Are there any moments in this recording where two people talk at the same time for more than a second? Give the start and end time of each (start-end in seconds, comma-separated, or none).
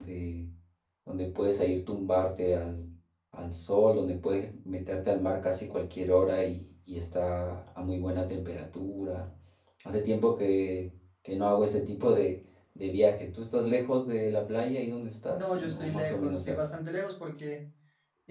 15.3-16.7